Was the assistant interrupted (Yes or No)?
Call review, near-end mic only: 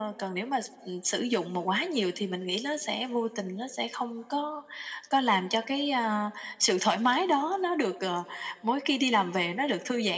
No